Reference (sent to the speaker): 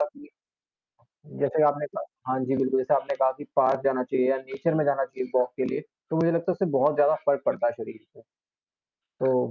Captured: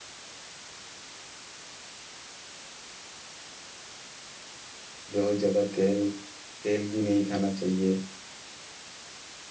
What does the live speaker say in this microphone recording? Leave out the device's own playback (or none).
बहुत ज़्यादा तेल तेल भी नहीं खाना चाहिए।